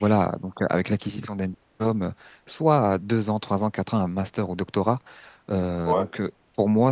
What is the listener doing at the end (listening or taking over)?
listening